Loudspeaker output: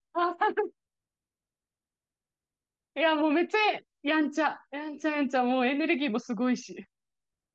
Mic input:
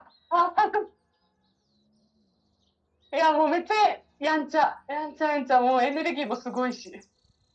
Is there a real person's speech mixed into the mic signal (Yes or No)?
No